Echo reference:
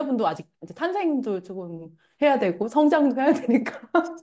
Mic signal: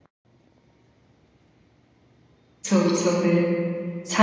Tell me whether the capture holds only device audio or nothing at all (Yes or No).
No